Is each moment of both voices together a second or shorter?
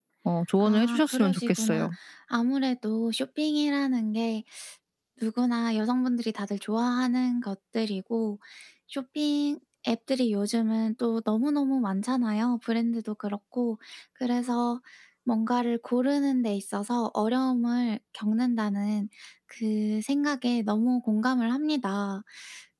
No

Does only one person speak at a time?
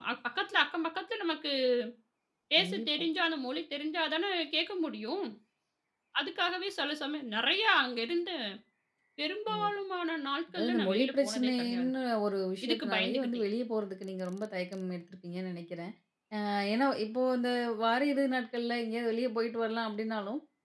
No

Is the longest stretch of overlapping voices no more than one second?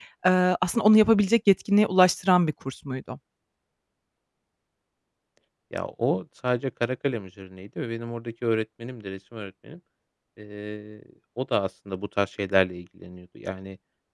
Yes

